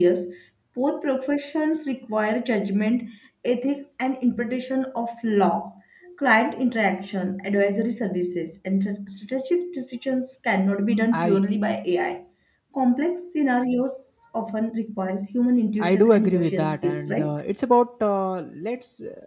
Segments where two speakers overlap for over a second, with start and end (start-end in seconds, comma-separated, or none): 15.8-17.3